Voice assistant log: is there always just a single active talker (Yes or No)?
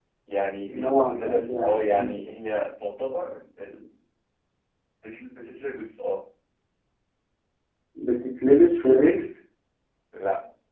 No